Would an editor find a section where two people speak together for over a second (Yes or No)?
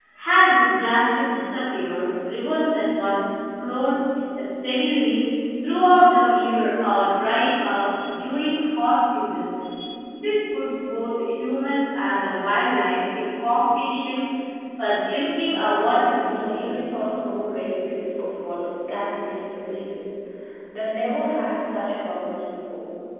Yes